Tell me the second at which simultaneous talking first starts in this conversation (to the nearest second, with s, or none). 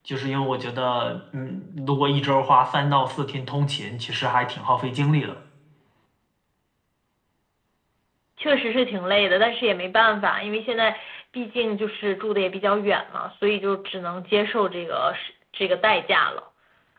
none